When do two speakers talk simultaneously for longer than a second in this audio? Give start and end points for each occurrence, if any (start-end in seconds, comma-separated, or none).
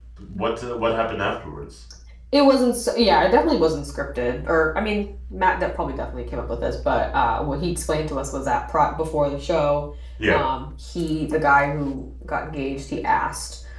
none